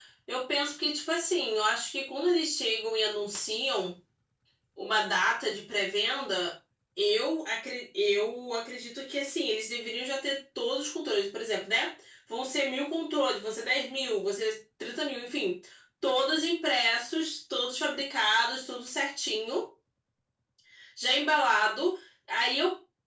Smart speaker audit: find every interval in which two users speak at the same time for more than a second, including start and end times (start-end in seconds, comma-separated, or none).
none